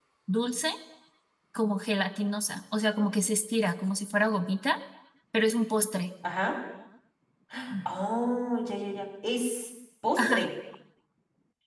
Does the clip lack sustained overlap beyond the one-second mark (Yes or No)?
Yes